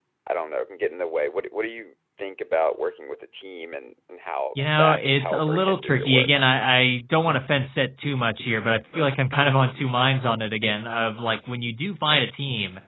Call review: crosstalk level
present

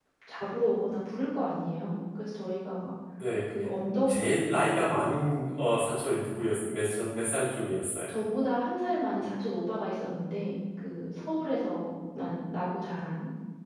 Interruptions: none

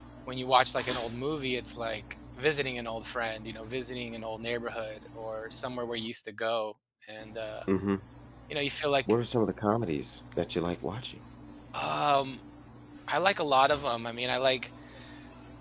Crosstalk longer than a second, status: none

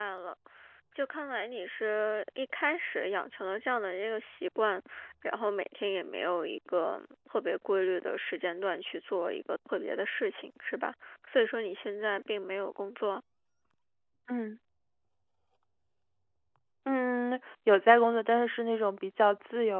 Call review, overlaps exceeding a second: none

